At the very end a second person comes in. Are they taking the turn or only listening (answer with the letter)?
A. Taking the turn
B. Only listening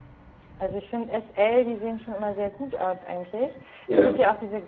B